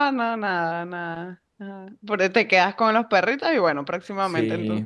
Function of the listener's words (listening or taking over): taking over